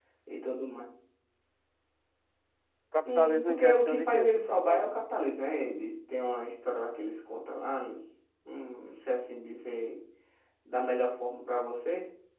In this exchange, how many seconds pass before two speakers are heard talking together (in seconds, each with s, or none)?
3.0 s